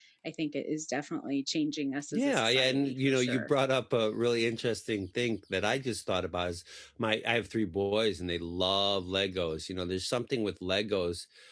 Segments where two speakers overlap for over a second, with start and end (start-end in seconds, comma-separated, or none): 2.1-3.5